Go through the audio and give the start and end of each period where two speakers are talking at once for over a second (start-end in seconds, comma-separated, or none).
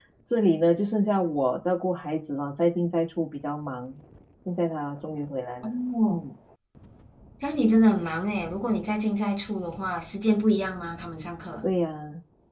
none